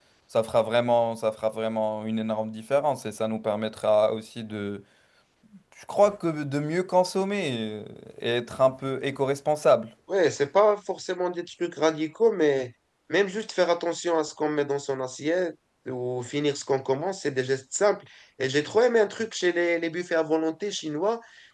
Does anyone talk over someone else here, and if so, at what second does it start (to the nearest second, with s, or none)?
none